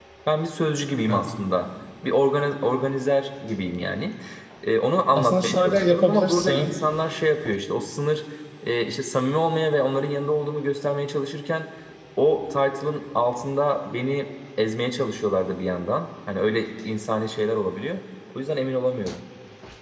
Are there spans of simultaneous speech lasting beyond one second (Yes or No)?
Yes